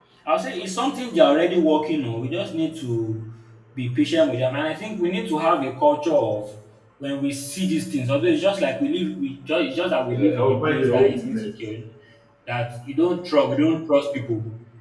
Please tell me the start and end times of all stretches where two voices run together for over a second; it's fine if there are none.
10.1-11.4

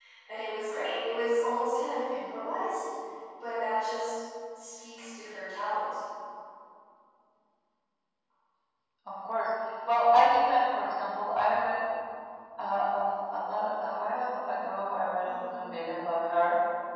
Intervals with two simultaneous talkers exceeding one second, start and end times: none

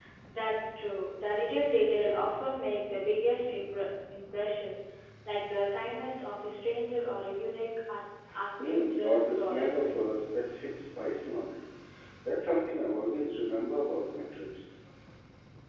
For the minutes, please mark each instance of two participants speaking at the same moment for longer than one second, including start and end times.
8.6-9.9

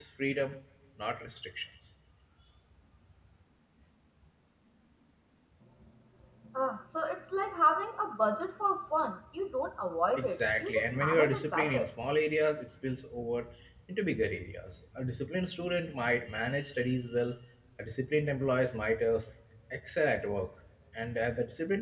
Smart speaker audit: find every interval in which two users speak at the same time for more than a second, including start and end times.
10.2-11.9

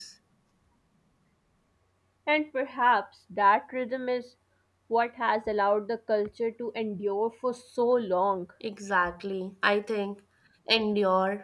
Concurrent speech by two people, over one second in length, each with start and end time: none

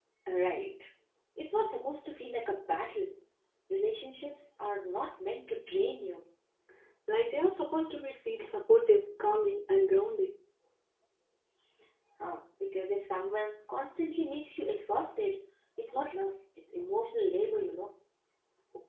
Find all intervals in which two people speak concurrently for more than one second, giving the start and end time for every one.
none

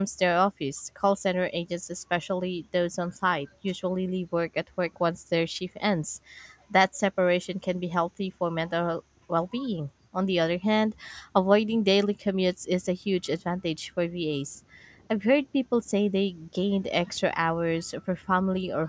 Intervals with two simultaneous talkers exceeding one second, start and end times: none

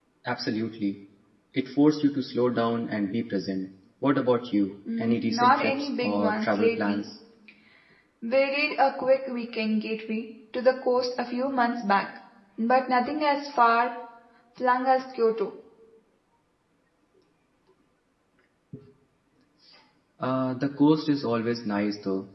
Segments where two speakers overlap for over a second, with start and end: 5.0-7.0

